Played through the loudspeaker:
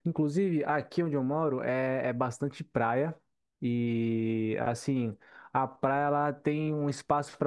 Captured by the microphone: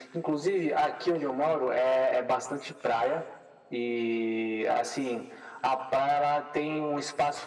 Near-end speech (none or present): none